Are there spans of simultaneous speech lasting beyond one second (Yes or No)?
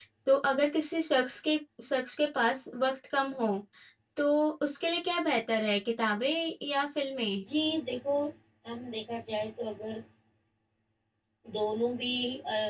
No